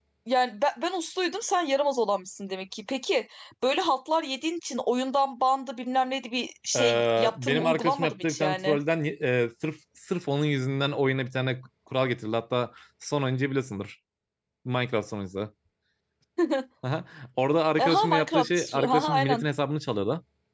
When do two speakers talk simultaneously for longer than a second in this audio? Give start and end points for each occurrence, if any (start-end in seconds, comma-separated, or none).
6.8-8.8, 17.8-19.4